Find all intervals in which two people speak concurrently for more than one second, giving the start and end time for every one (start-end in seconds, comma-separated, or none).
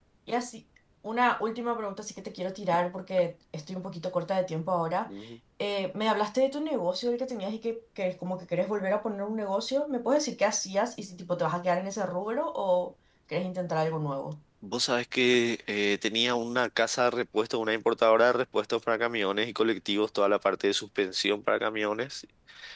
none